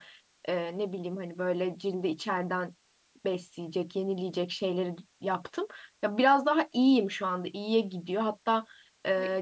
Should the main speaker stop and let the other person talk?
No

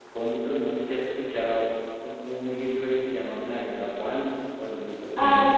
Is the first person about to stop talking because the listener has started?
Yes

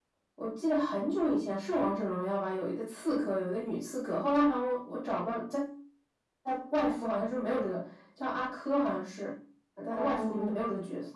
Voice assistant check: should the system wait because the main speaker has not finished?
No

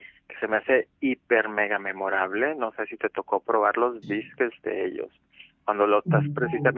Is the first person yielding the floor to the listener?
No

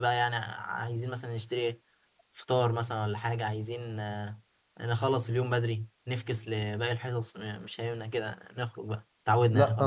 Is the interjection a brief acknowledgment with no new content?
No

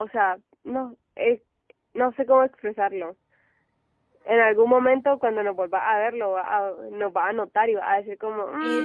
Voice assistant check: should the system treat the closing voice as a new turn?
Yes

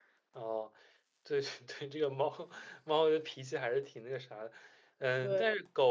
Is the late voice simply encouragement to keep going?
Yes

